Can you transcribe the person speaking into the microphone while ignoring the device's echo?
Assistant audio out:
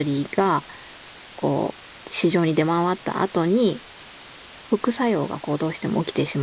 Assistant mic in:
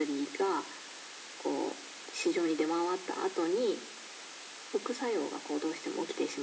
none

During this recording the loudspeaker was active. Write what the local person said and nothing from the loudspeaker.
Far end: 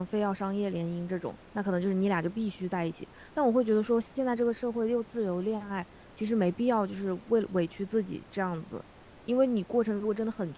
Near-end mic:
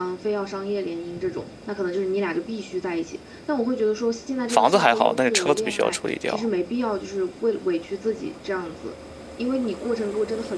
房子还好，但是车子必须要处理掉。

